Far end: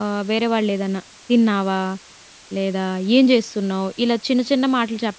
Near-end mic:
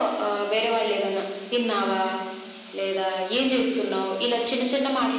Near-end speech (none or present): none